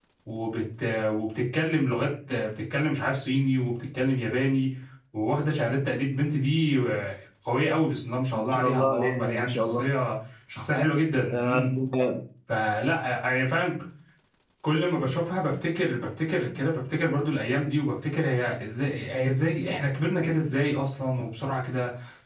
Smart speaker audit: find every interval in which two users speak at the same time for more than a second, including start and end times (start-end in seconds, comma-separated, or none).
8.5-9.8